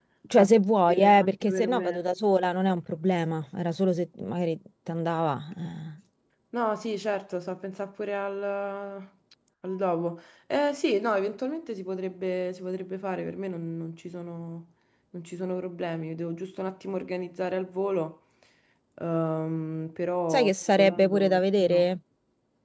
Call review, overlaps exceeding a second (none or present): present